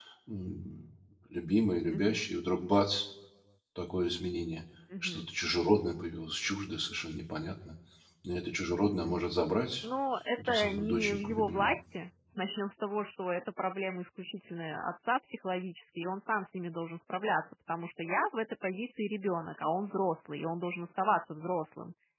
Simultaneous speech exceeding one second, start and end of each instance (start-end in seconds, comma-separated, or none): 10.5-11.7